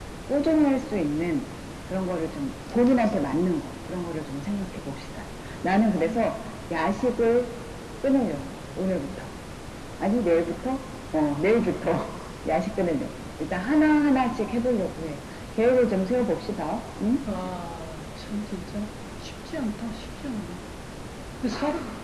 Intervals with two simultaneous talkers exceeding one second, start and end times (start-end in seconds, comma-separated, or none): none